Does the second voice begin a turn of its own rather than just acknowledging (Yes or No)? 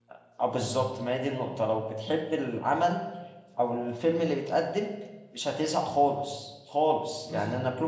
No